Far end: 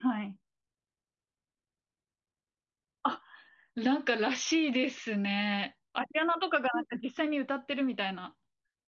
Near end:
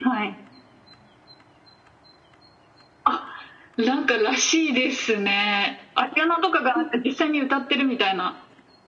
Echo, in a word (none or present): present